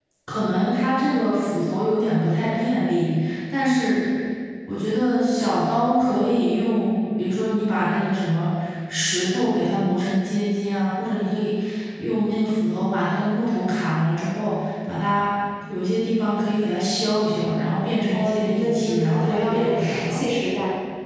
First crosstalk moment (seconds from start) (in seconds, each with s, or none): 18.1 s